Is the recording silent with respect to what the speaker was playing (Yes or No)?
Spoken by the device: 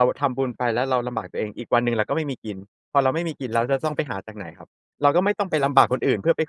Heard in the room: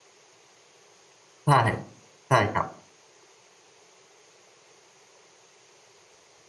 Yes